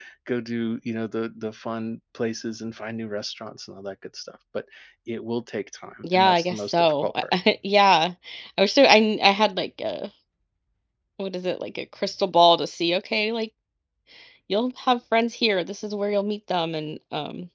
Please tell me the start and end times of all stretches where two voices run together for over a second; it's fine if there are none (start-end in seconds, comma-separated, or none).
6.0-7.2